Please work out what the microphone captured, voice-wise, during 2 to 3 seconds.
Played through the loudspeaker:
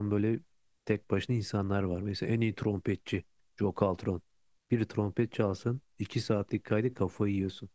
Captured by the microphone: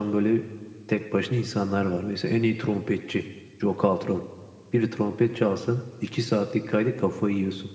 echo only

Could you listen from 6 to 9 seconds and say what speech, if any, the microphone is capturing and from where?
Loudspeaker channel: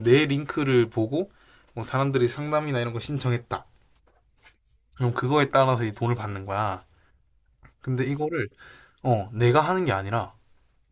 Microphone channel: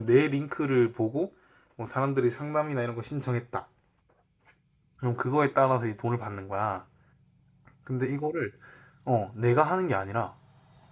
echo only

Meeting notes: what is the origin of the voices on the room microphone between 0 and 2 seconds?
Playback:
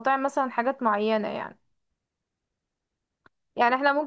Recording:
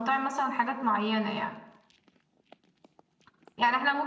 echo only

